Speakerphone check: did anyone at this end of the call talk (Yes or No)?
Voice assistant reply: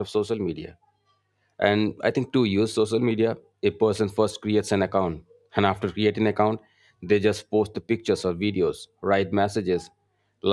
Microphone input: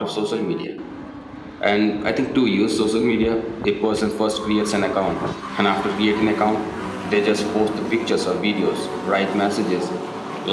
No